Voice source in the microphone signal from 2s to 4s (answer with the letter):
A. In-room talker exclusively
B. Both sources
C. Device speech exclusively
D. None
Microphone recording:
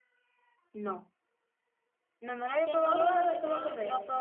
B